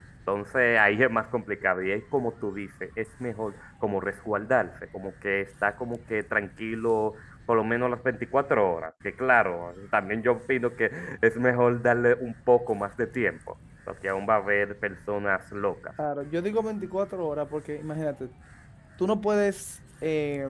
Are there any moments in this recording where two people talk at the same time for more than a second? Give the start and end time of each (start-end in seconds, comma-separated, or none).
none